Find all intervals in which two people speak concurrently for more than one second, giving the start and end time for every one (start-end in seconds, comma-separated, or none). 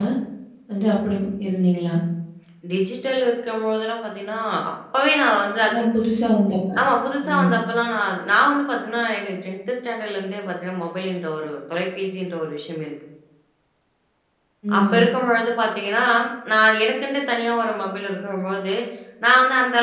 none